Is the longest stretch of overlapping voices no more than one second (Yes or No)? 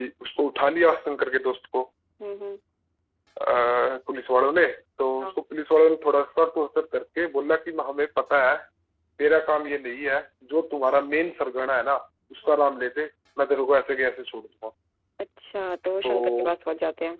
Yes